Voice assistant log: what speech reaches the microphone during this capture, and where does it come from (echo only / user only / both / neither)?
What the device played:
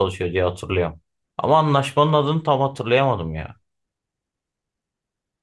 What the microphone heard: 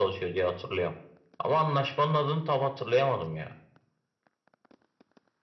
echo only